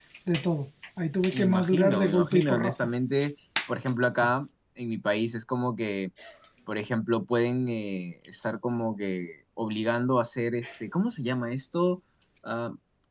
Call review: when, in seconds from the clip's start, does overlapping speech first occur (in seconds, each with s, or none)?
1.3 s